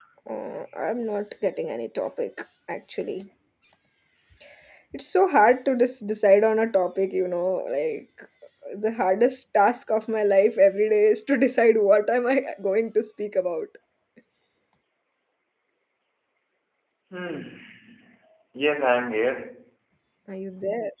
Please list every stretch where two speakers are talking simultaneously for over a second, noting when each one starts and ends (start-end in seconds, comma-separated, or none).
none